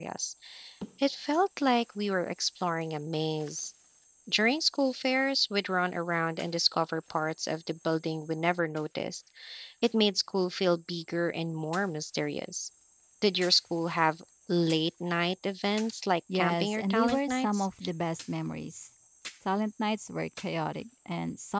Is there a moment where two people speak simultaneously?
Yes, from 16.3 s

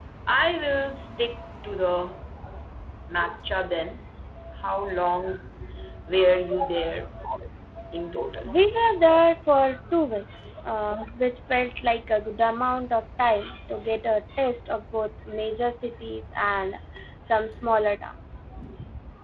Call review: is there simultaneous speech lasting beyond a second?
No

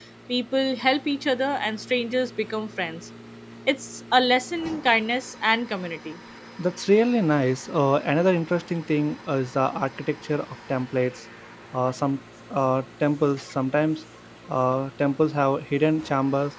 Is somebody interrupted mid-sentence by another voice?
No

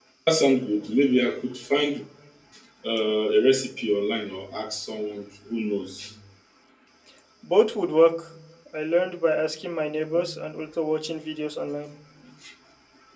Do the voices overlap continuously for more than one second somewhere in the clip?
No

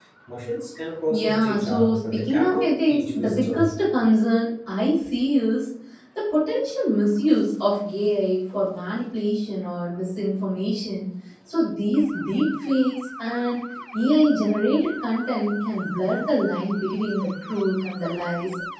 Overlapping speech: Yes, from 1.1 s

